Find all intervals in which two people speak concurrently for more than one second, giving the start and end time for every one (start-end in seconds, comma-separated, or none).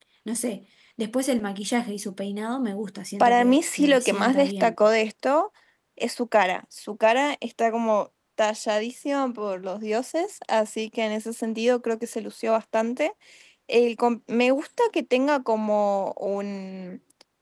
3.2-4.8